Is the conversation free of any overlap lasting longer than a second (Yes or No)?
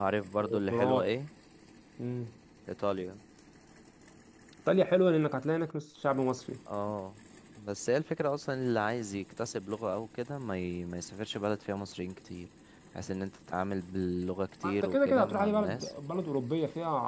No